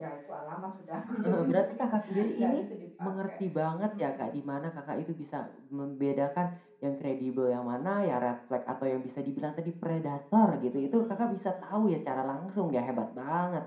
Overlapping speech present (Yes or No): Yes